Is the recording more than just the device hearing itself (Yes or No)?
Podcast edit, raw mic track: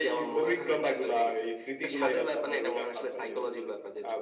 No